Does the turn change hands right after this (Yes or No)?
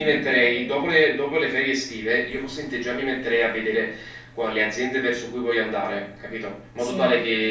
No